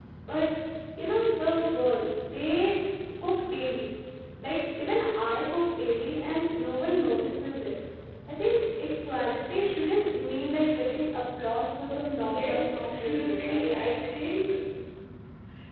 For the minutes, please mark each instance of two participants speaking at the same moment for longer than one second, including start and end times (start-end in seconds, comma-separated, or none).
12.2-13.7